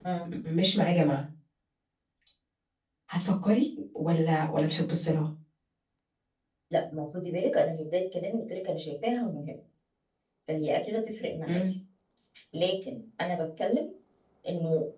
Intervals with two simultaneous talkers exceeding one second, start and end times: none

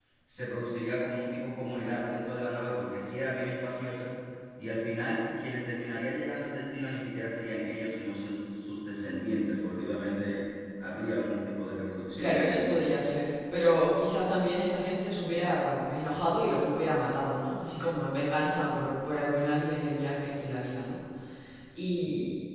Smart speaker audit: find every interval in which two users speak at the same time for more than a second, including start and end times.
none

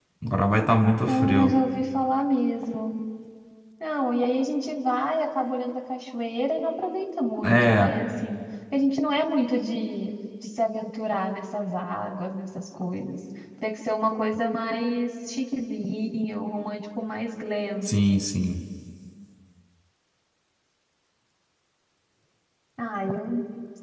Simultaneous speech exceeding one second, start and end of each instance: none

